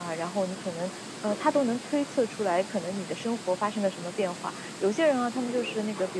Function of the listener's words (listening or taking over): listening